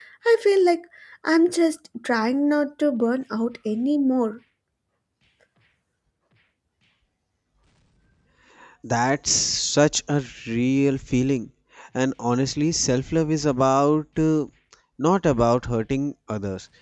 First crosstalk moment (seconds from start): none

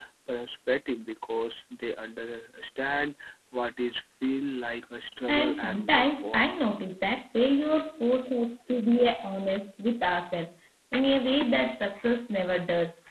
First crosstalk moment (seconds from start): 5.3 s

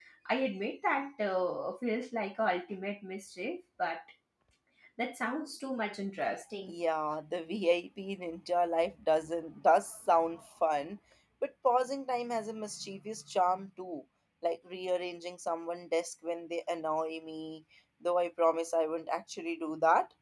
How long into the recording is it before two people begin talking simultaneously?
none

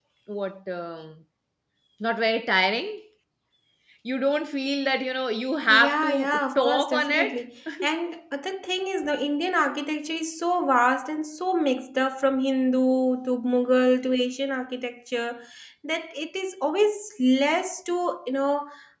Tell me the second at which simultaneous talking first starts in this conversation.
5.7 s

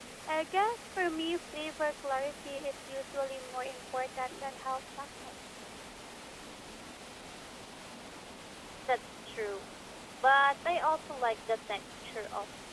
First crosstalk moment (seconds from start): none

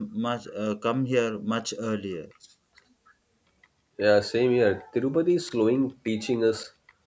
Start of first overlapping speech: none

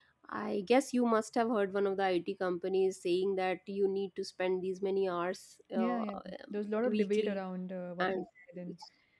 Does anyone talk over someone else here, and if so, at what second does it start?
5.8 s

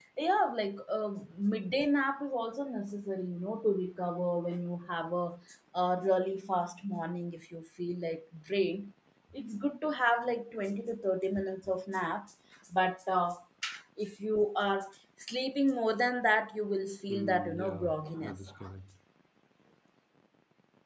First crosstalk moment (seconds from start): 17.1 s

